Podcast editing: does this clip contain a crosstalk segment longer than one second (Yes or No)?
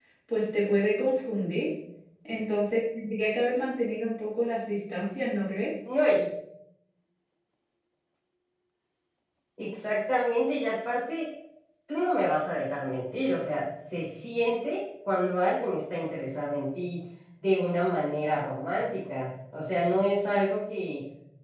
No